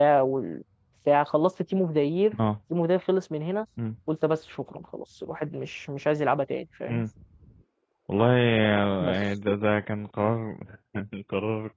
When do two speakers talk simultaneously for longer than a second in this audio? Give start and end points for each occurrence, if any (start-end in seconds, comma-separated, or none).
none